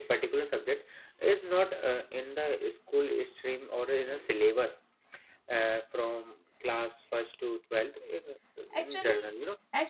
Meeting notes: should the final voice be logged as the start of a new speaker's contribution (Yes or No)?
Yes